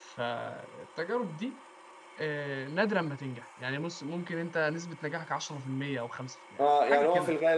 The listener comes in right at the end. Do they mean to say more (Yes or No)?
Yes